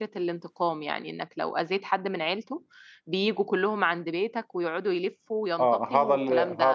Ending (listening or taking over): taking over